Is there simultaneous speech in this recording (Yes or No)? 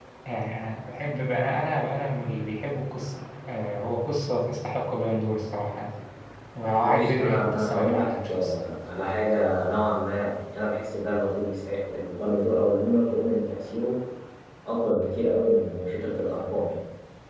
Yes